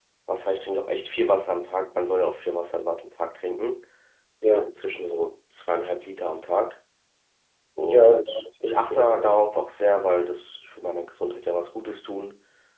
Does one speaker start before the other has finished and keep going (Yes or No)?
Yes